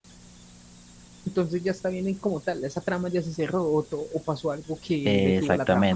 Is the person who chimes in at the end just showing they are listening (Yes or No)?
No